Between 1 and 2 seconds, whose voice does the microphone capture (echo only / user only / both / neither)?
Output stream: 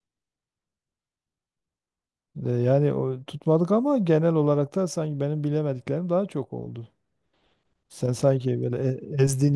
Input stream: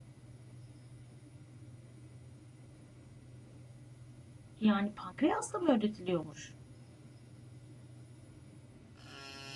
neither